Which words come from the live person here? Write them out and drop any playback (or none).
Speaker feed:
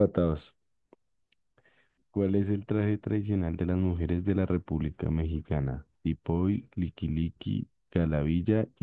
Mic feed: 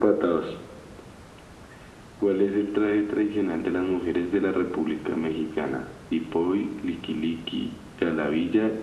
none